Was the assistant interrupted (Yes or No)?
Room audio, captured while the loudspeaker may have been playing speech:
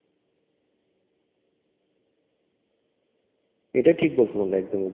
Yes